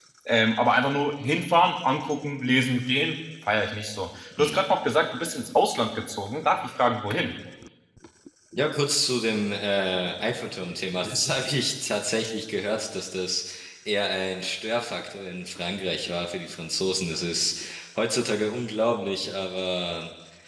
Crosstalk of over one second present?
No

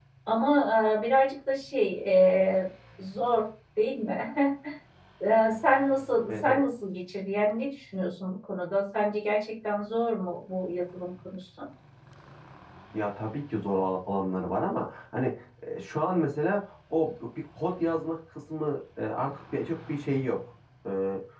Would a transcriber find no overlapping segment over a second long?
Yes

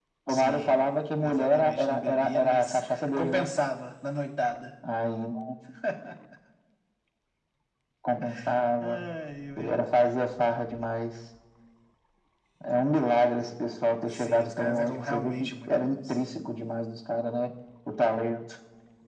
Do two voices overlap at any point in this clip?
Yes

